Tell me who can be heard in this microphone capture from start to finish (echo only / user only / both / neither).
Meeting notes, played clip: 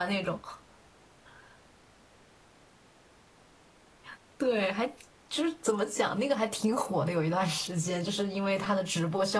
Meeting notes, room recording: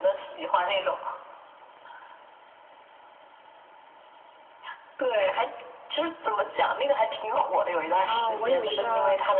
both